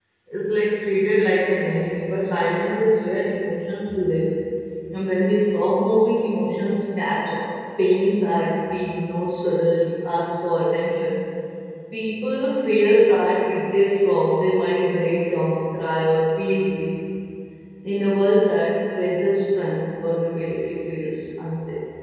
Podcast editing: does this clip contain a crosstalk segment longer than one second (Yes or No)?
No